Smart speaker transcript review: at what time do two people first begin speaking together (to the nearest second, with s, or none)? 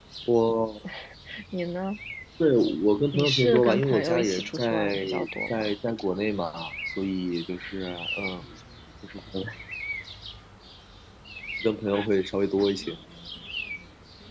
3 s